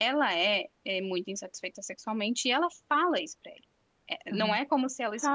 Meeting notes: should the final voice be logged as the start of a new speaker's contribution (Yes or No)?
Yes